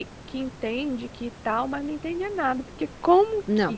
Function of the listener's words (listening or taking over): listening